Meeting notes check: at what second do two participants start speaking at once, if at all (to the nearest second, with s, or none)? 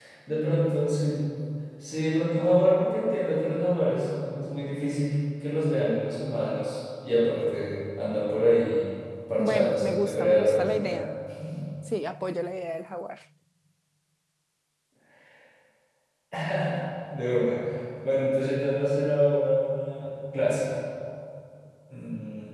9 s